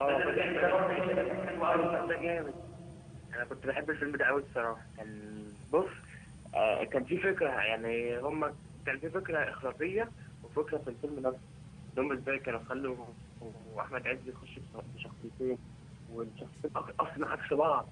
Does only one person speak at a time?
No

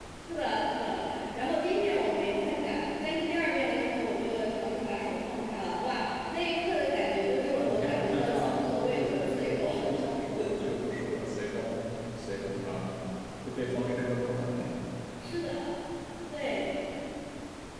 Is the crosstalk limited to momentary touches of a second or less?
No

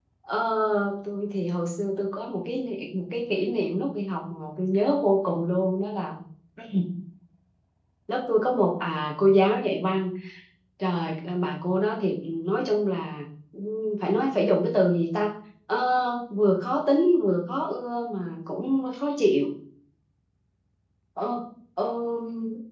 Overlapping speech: No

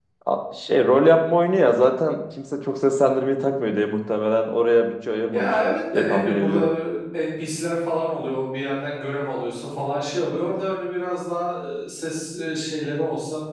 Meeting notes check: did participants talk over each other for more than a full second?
Yes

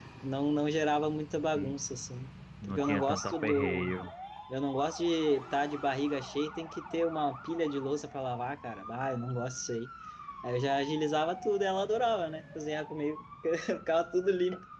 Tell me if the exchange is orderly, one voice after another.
No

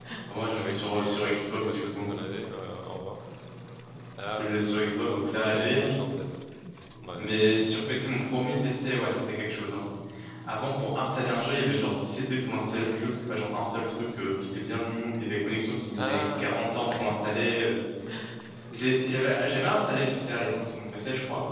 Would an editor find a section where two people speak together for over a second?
Yes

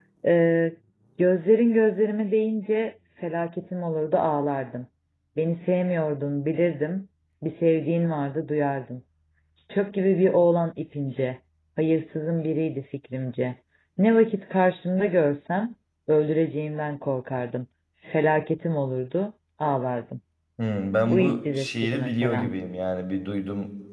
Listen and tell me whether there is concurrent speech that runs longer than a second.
Yes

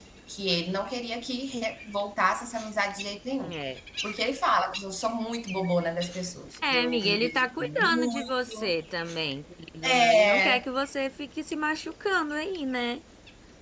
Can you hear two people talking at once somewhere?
Yes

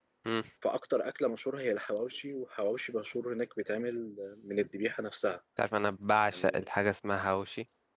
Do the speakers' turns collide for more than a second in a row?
No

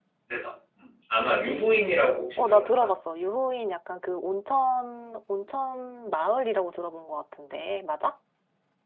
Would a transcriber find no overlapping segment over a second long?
Yes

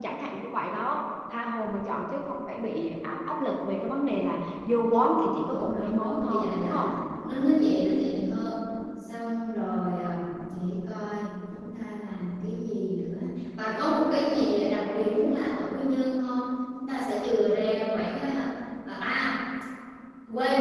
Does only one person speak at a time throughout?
No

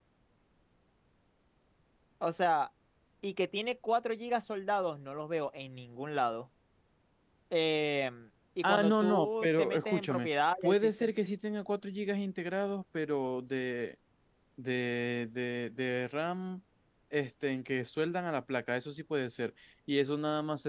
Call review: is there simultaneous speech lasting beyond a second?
Yes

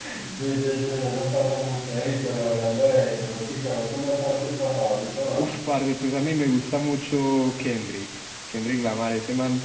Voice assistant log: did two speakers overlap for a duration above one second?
No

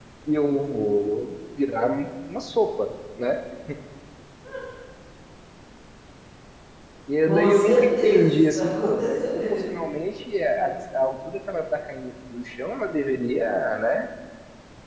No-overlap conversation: No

